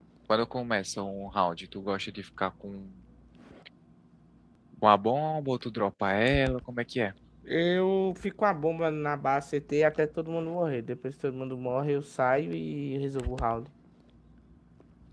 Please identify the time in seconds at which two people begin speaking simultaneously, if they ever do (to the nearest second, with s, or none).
none